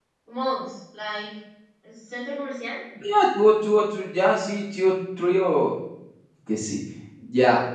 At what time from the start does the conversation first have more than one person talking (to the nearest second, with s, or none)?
none